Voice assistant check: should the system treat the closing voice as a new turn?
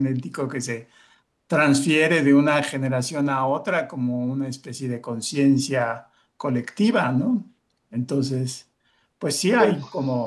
No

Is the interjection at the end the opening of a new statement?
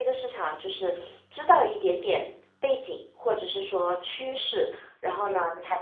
No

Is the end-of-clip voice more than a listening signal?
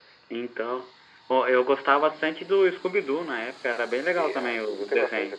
Yes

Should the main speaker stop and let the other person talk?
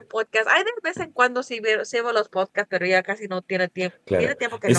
Yes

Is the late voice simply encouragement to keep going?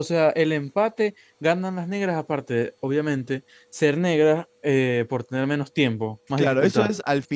No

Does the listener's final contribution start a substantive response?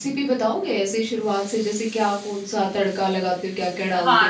Yes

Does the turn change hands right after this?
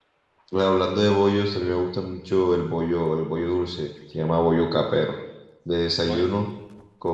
No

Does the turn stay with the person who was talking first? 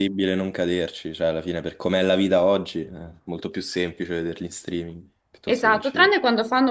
No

